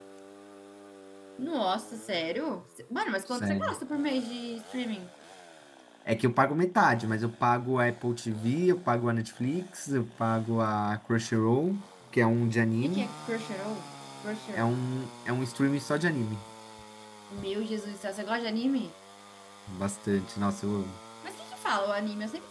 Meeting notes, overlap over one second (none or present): none